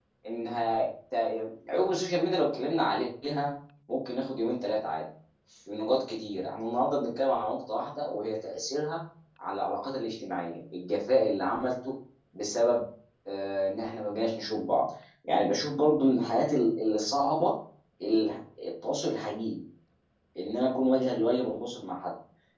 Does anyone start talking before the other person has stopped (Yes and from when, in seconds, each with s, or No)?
No